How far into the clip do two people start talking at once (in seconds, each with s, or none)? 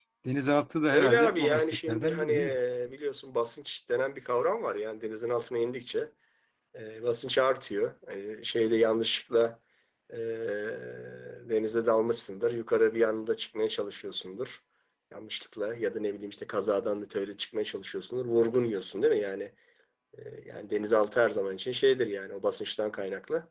0.9 s